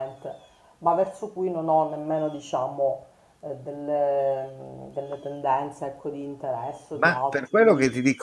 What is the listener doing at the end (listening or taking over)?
taking over